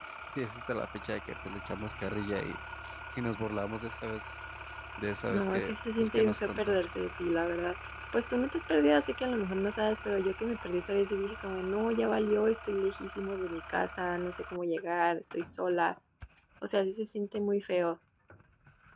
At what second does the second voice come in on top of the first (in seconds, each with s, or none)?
5.3 s